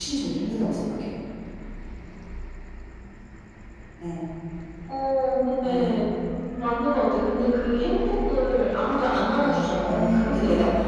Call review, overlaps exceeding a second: present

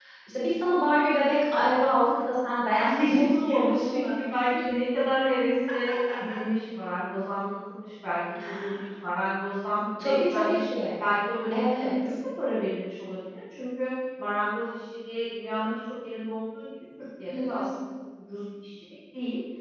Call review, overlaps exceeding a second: present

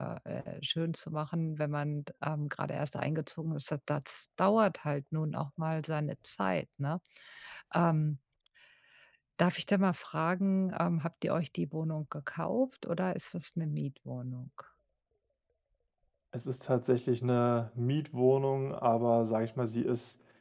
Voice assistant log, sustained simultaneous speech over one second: none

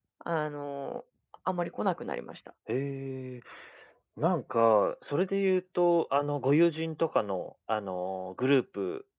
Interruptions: none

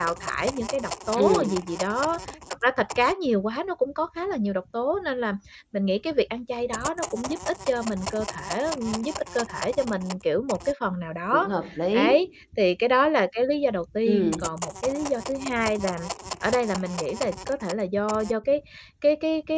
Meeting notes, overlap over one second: none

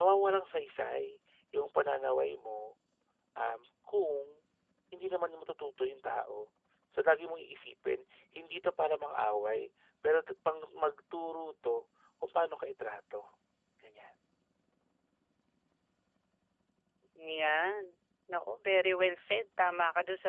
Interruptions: none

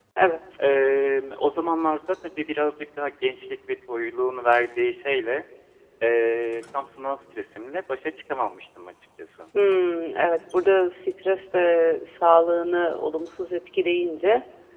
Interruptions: none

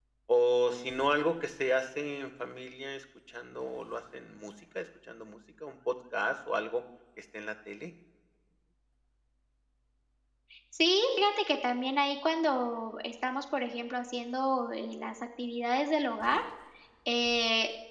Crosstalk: none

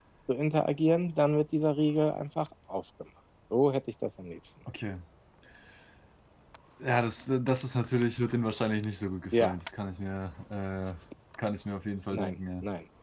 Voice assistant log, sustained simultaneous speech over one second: none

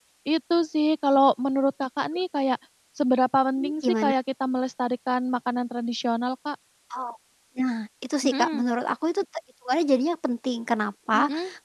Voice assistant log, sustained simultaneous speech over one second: none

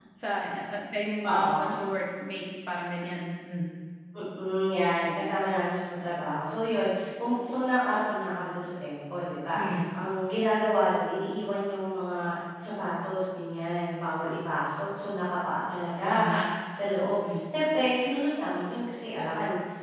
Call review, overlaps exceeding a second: none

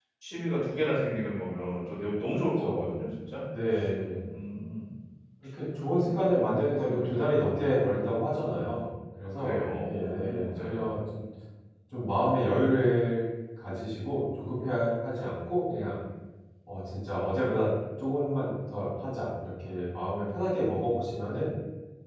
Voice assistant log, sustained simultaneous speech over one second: present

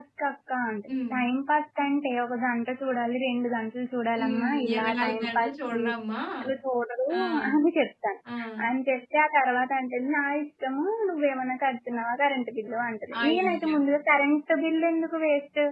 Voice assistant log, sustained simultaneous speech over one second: present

